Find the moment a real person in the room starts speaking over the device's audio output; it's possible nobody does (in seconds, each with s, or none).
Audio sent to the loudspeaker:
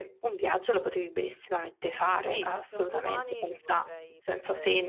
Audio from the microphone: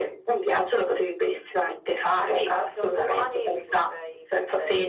none